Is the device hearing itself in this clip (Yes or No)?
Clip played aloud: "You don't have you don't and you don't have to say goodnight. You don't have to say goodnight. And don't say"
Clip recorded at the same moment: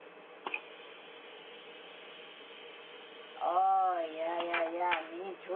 No